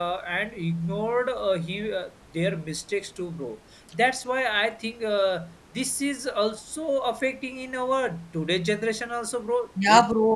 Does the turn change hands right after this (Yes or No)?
Yes